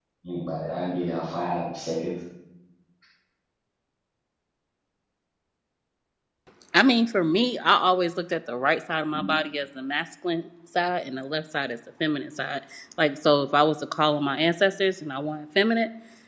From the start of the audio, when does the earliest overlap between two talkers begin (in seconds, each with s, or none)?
none